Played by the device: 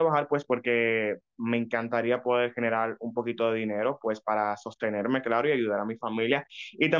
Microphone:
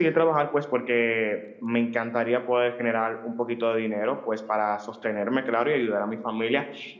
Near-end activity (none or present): none